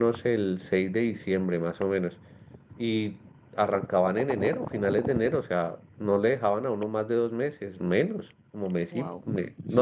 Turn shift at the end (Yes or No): No